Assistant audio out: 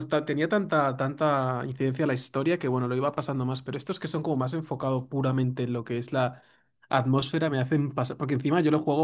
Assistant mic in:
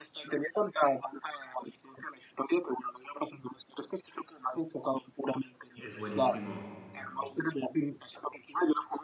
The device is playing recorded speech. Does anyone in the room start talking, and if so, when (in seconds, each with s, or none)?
5.8 s